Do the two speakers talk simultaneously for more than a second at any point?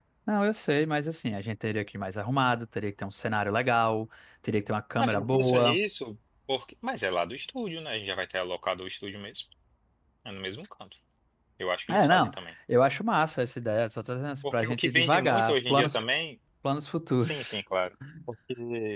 Yes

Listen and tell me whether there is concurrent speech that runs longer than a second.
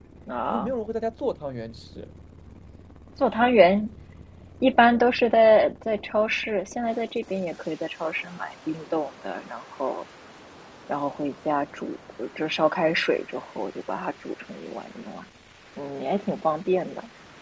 No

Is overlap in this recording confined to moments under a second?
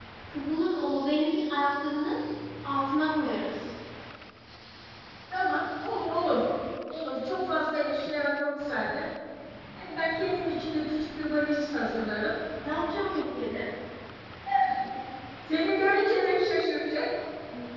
Yes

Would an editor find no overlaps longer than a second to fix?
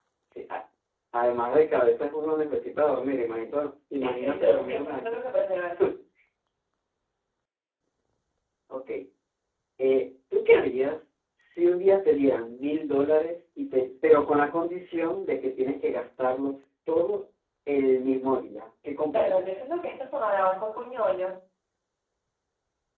No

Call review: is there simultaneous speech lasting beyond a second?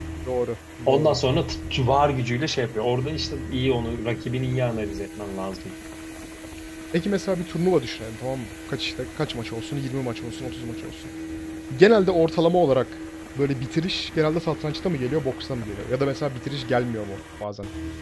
No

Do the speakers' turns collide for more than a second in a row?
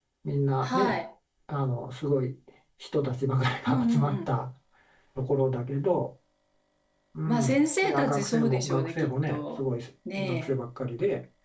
Yes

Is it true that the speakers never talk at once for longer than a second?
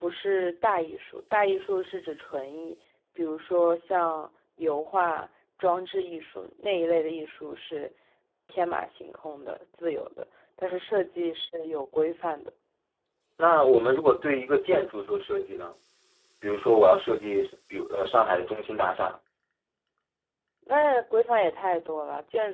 Yes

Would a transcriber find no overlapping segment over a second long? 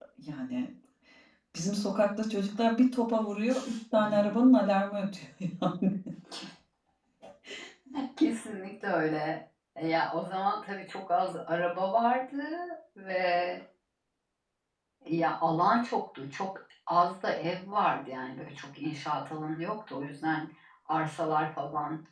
Yes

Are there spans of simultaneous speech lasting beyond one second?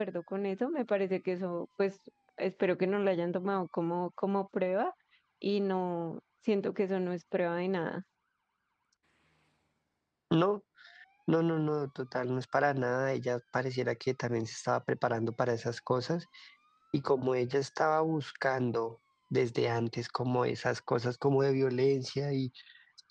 No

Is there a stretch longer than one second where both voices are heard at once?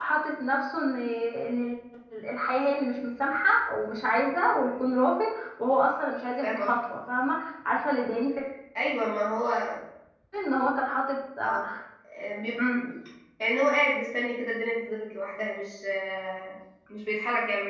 No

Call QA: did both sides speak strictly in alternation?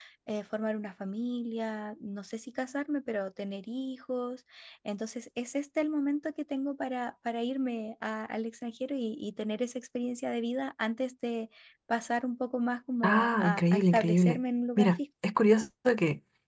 No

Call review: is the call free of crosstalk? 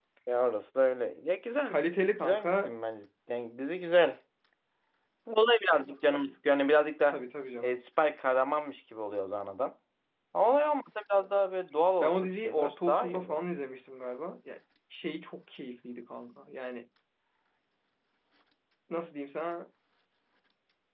No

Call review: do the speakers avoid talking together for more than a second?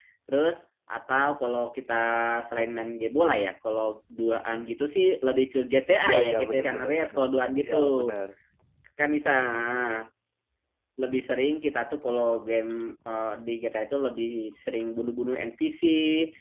No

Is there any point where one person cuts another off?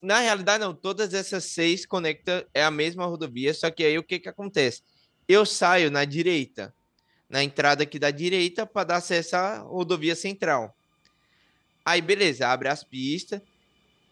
No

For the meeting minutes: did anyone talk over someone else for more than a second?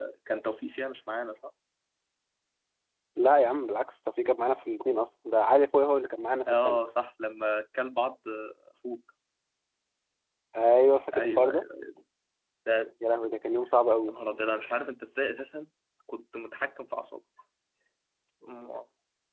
No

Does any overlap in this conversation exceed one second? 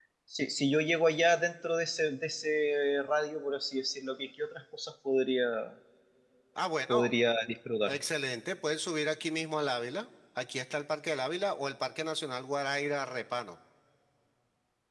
No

